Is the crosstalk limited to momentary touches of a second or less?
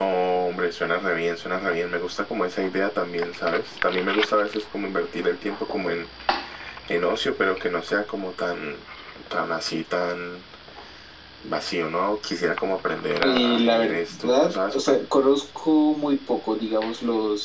No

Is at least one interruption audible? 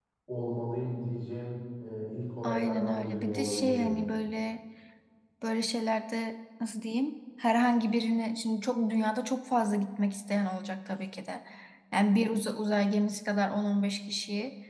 Yes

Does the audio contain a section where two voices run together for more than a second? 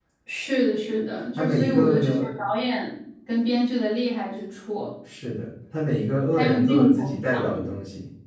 Yes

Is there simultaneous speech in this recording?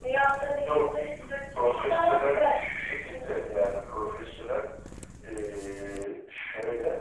Yes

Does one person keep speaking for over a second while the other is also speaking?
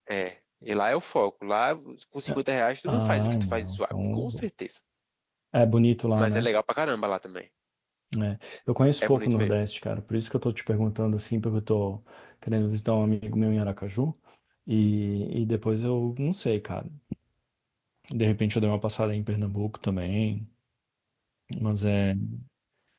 Yes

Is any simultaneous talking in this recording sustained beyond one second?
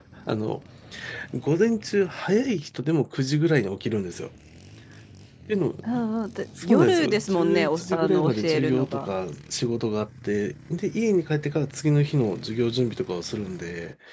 Yes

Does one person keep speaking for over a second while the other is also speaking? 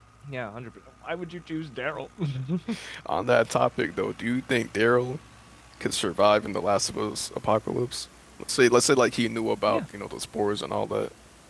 No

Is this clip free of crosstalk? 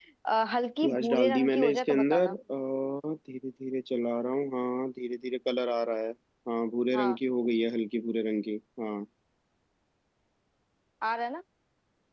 No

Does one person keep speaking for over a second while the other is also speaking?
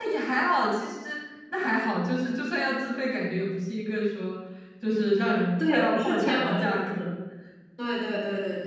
Yes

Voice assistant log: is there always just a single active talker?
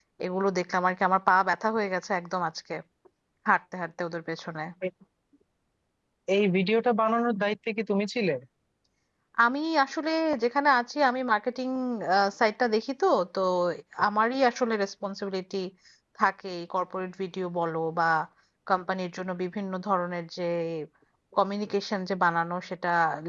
Yes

